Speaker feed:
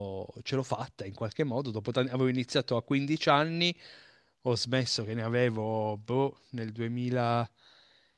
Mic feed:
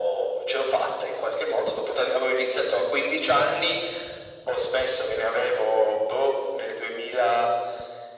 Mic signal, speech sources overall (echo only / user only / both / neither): echo only